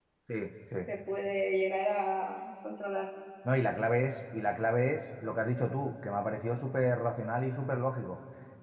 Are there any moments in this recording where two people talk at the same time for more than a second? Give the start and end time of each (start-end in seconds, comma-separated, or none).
none